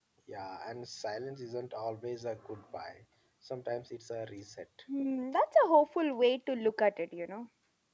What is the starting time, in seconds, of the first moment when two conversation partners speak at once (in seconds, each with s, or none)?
none